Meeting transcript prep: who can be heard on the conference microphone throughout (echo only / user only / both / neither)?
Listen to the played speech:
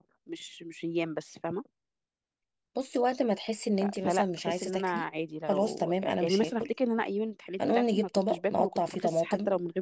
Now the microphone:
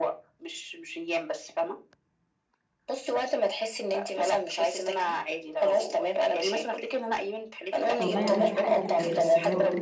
both